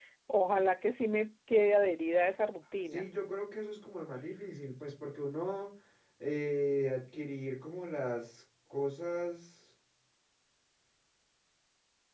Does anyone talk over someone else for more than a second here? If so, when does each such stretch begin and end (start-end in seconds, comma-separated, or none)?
none